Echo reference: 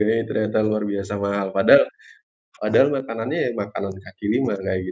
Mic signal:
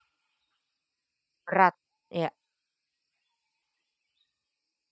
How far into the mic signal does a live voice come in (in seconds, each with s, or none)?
1.4 s